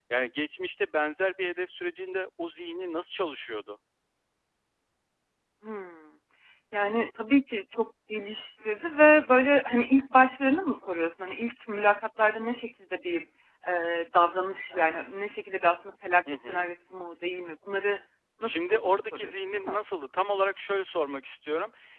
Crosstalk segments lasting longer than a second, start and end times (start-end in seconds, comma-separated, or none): 18.4-19.8